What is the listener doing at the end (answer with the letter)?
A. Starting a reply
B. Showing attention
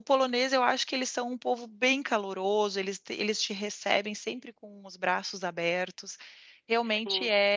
B